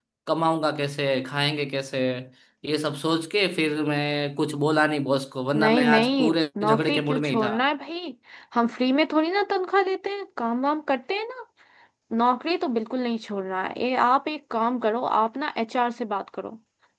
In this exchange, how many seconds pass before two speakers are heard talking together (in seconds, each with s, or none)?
5.5 s